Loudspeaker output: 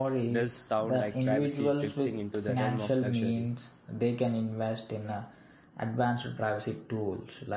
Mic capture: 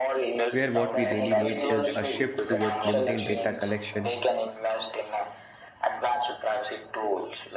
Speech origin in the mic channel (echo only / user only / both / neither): both